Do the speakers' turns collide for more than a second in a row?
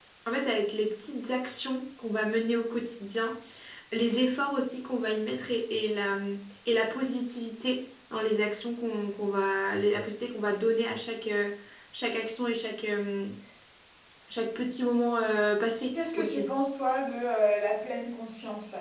No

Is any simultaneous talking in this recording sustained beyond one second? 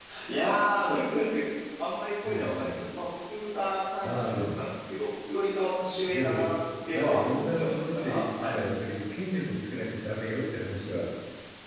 Yes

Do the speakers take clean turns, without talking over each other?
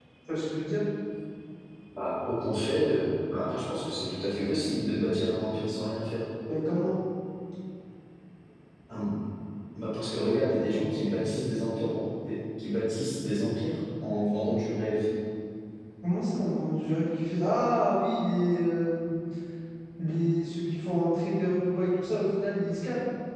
Yes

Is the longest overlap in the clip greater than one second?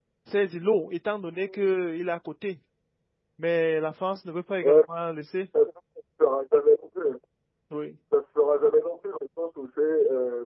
No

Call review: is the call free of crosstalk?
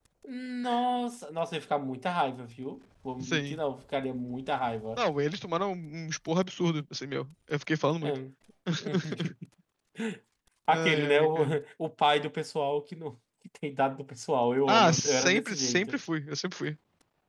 No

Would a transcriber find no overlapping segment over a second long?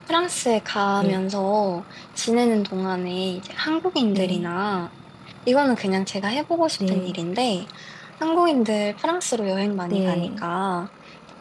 Yes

